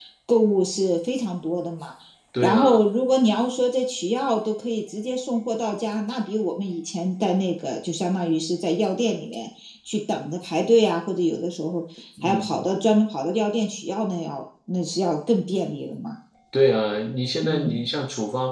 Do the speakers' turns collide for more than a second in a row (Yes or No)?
No